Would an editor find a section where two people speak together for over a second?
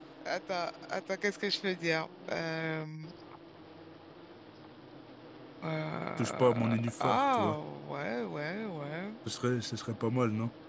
Yes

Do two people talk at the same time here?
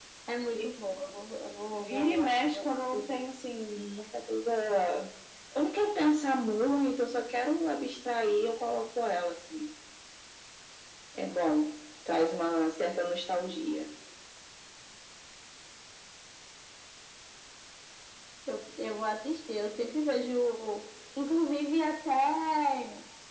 Yes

